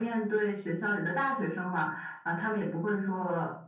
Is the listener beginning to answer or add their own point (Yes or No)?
No